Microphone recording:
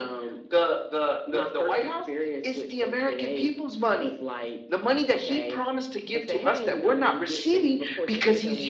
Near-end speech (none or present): none